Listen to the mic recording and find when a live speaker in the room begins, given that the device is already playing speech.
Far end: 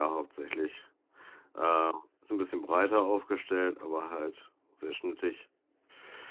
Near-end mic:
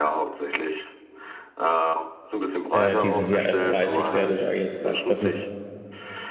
2.7 s

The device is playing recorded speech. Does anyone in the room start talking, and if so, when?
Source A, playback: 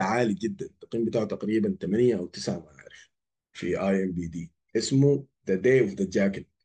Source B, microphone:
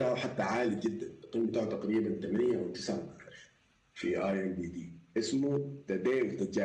none

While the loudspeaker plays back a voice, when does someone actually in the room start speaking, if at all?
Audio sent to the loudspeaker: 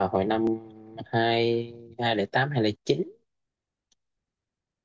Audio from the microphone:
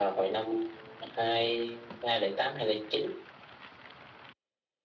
none

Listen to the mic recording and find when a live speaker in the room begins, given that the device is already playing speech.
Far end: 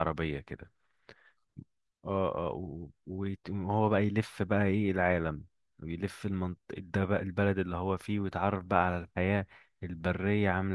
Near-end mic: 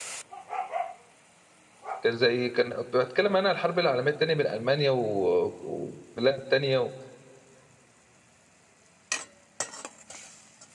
2.0 s

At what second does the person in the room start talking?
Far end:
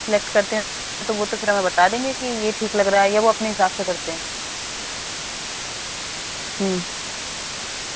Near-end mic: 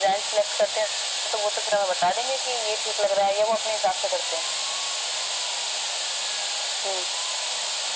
none

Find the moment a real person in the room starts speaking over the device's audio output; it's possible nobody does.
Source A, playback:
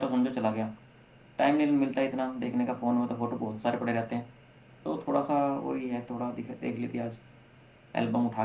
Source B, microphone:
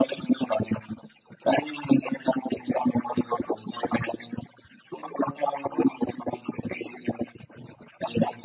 none

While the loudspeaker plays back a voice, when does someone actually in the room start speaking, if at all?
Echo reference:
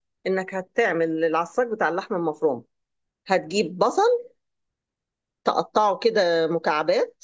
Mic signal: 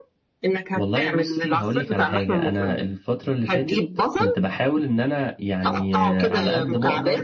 0.7 s

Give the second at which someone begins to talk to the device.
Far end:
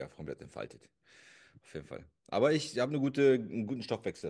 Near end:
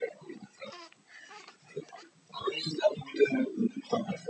none

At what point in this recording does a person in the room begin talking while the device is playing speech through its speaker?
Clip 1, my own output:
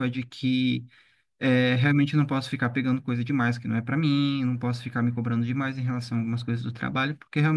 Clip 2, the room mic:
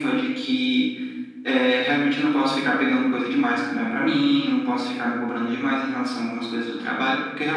none

